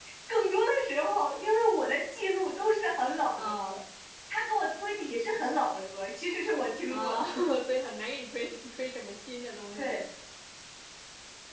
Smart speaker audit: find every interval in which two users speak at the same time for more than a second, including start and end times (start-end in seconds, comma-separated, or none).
none